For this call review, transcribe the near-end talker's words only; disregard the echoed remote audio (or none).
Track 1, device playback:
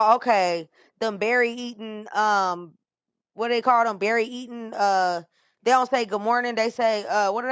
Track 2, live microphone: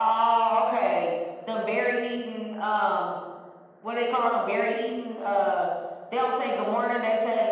none